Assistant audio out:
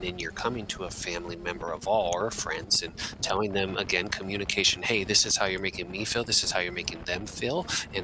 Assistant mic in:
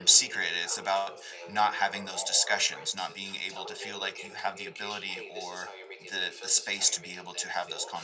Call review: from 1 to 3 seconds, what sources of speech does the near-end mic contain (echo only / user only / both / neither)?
both